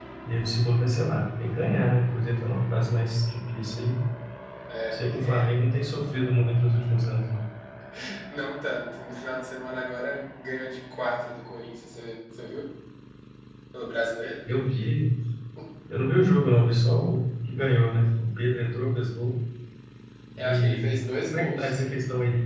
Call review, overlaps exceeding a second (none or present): present